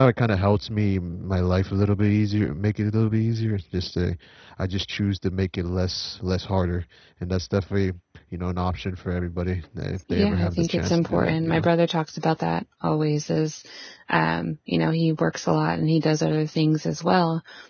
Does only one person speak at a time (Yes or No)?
No